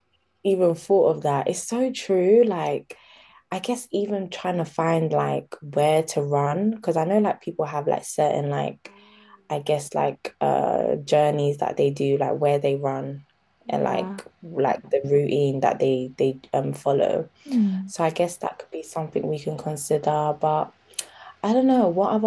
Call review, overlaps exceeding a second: none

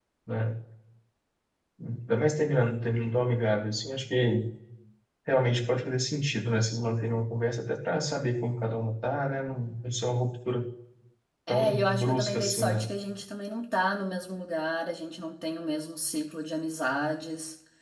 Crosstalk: present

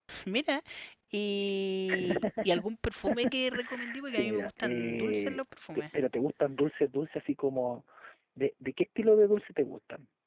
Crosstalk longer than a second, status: present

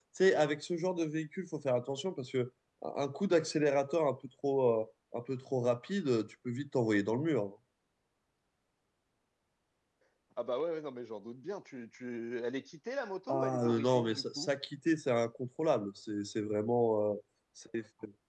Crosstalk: present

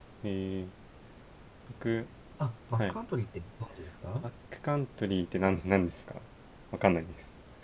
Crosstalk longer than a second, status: none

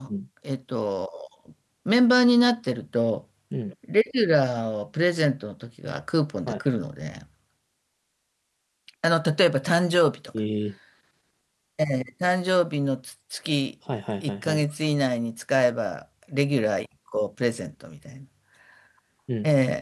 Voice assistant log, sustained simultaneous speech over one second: none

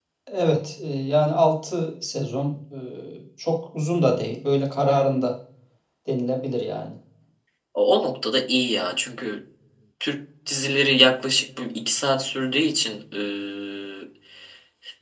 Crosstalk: none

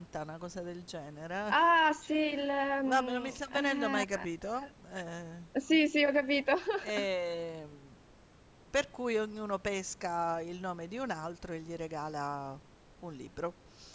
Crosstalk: present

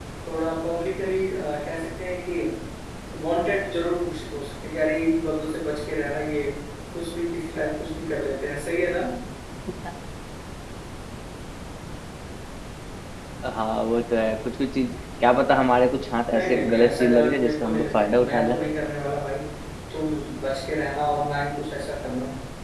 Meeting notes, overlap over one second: present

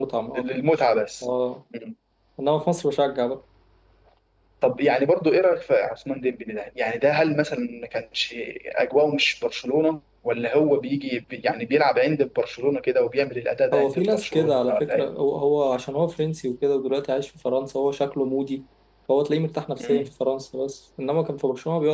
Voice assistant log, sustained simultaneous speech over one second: present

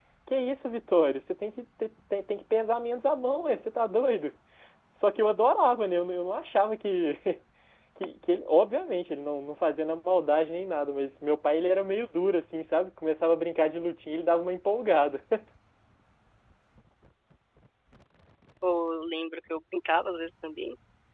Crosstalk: none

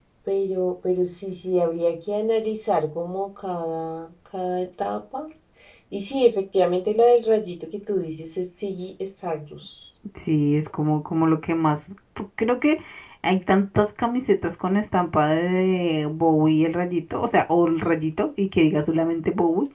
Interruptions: none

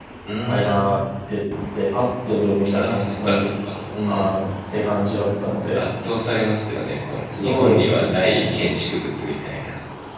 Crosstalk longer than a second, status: present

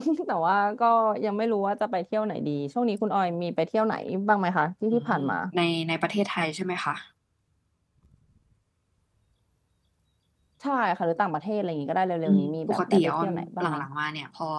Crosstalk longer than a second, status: present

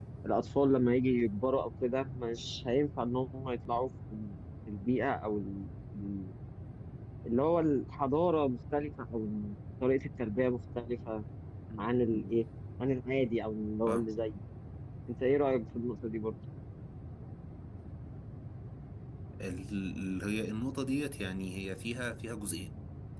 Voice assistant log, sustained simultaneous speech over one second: none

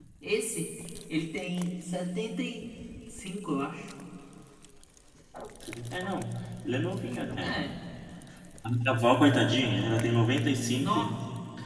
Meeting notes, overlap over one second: none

